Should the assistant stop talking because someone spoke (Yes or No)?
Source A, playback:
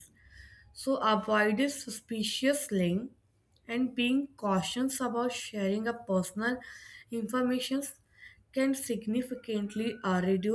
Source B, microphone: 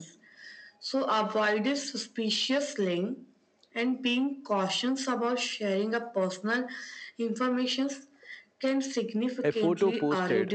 Yes